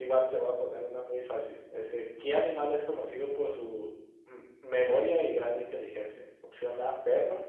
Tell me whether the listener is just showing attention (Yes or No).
Yes